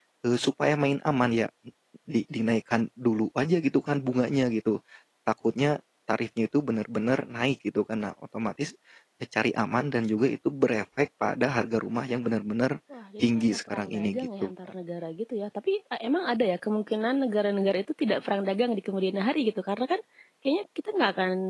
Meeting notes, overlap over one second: present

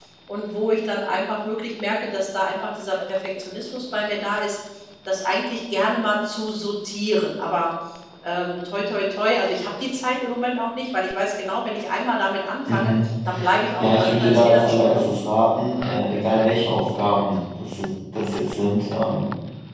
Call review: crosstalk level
present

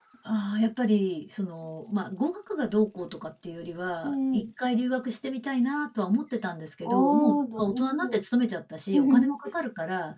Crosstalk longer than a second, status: present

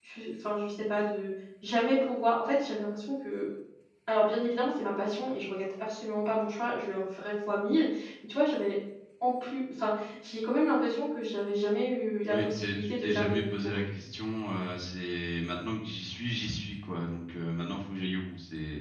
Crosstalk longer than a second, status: present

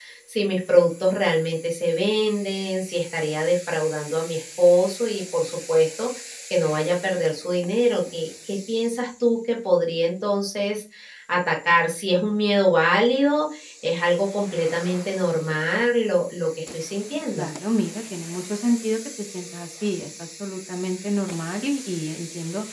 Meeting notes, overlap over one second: none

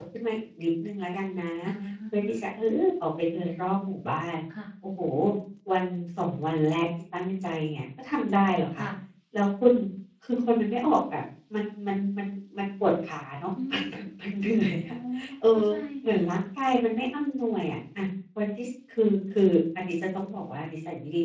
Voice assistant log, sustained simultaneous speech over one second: none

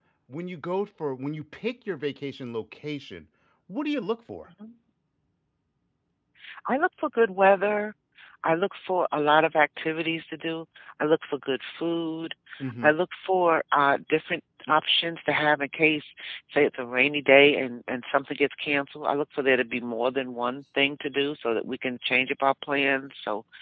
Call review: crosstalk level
none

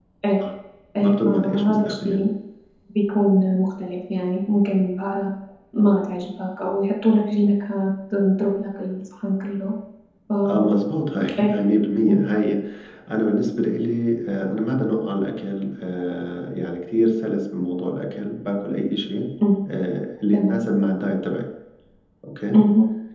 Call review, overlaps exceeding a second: present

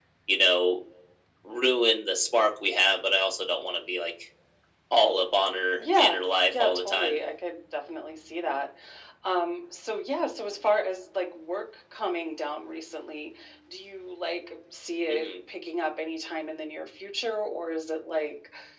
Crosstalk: present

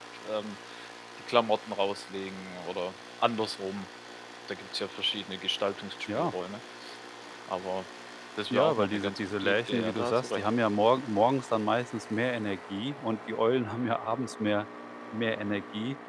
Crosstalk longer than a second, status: present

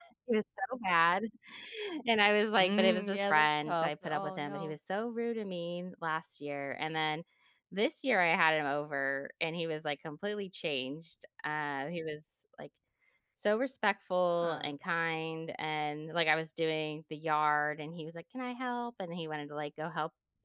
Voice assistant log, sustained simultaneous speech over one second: present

